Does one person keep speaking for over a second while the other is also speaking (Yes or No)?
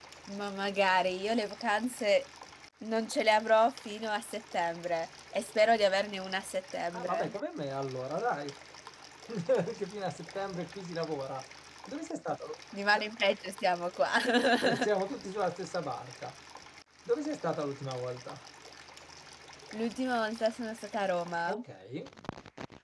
No